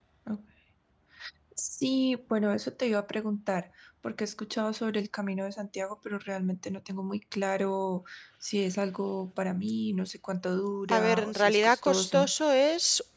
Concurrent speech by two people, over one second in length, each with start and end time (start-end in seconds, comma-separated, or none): 11.0-12.3